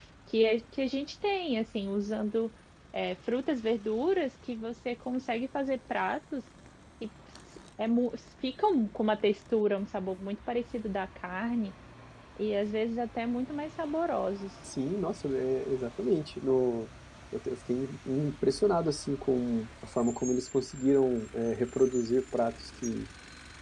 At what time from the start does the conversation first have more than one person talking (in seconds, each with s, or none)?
none